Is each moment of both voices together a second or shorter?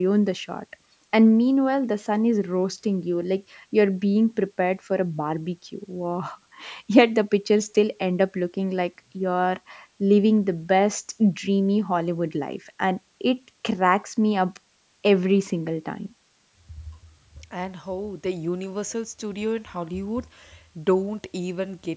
Yes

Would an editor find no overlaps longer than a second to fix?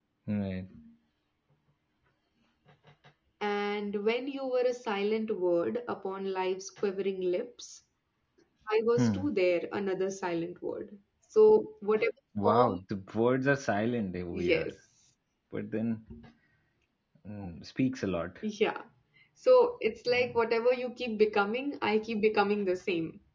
Yes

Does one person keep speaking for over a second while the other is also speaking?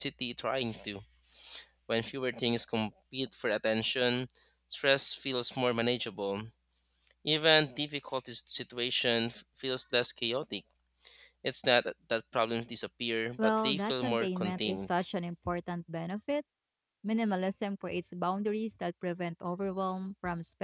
Yes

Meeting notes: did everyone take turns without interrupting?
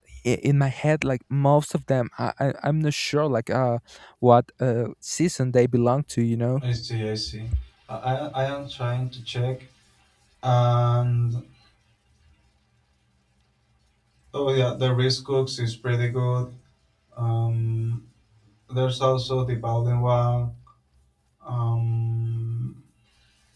Yes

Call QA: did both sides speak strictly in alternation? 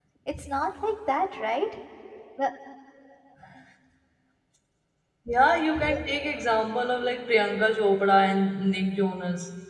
Yes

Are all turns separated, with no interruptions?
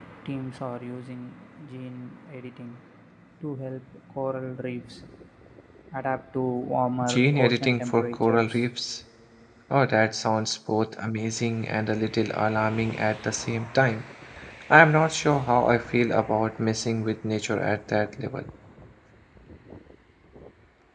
No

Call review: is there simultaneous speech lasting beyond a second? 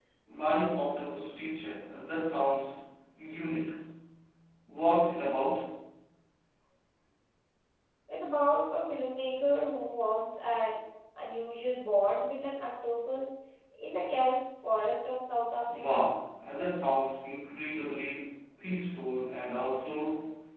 No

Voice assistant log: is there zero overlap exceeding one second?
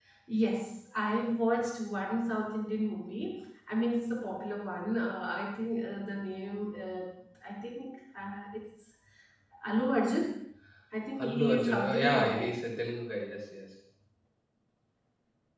No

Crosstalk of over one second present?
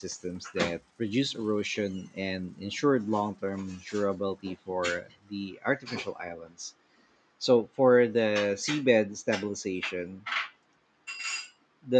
No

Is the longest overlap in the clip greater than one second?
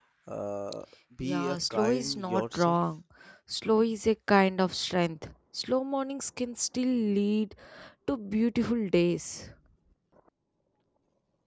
Yes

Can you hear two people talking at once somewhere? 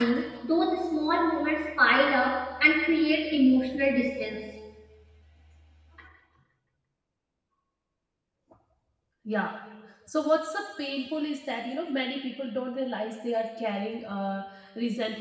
No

